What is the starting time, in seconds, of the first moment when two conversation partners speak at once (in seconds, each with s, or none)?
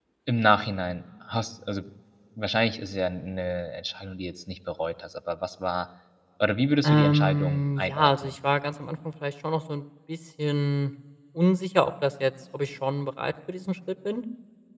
6.8 s